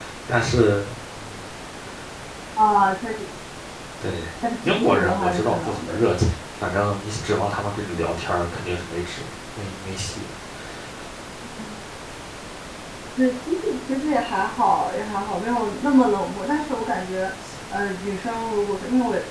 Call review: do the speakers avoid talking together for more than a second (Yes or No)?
No